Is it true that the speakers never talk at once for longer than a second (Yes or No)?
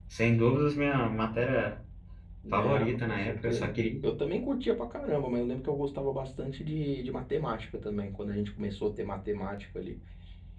No